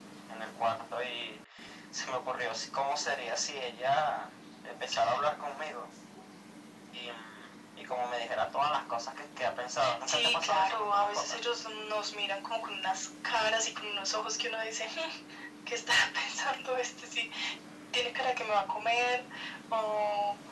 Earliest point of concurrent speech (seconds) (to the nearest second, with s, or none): 10 s